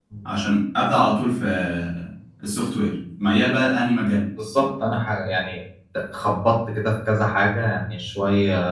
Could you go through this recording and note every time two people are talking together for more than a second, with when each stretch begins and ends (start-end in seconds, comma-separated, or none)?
none